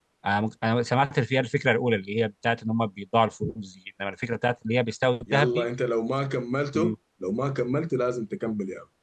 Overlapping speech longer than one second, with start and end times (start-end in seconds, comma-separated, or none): none